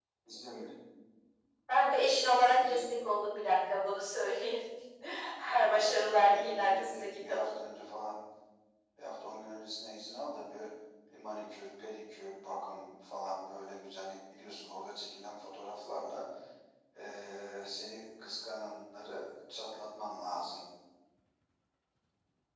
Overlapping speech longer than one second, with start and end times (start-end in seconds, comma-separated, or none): 5.7-7.6